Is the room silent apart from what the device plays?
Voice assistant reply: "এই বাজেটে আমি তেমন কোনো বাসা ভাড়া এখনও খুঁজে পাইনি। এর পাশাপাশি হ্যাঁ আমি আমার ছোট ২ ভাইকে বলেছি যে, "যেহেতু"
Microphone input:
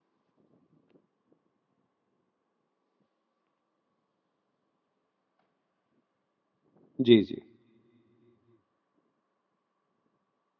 No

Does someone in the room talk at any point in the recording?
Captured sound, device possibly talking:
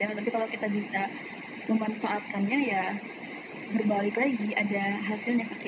No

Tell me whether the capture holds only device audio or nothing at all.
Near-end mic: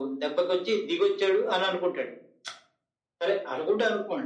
Yes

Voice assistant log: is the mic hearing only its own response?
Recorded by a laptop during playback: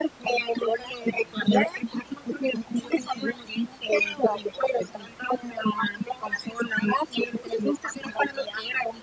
Yes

